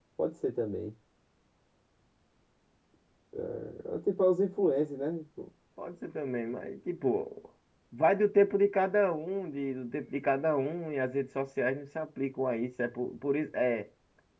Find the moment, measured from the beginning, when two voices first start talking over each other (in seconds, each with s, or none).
none